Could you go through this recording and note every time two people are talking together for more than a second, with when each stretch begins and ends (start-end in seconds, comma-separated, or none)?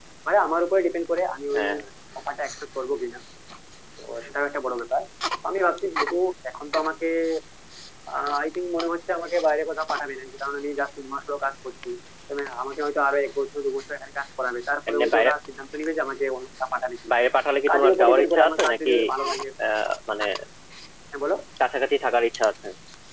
17.7-18.9